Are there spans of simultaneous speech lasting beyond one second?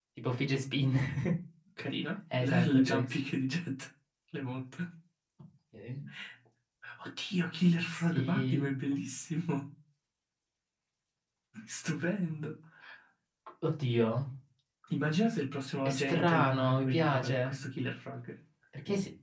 Yes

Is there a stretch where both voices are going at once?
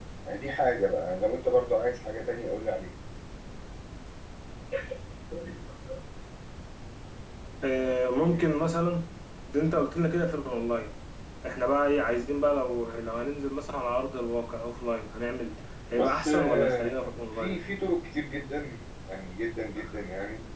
Yes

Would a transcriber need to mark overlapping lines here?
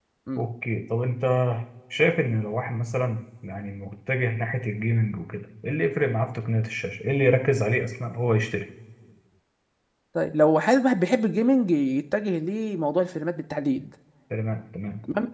No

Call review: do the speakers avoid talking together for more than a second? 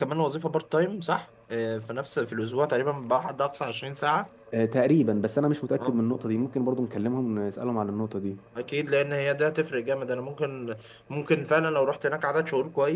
Yes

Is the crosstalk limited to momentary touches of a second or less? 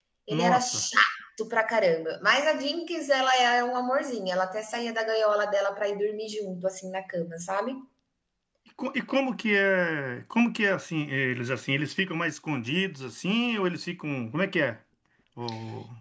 Yes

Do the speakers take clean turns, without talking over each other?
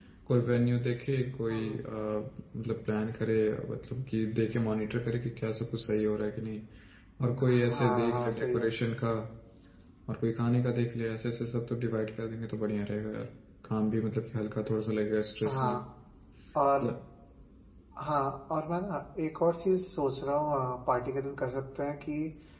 No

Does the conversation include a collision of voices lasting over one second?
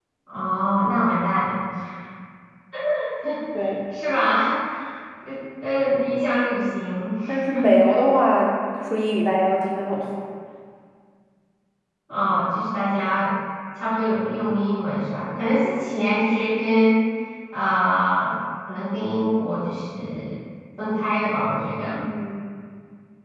No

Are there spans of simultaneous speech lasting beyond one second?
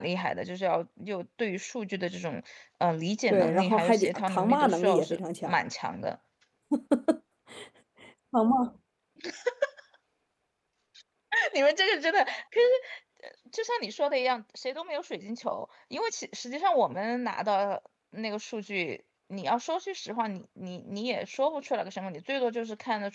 Yes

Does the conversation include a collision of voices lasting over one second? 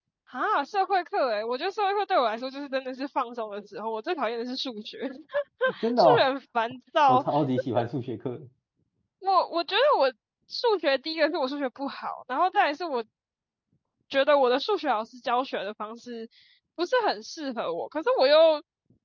No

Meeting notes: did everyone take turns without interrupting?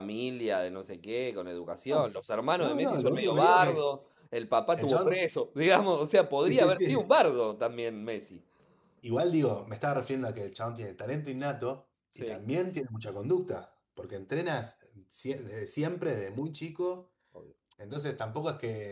No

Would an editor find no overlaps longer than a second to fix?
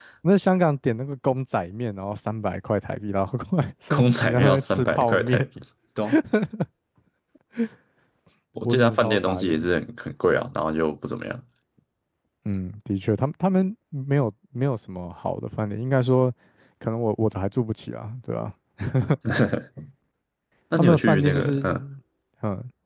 No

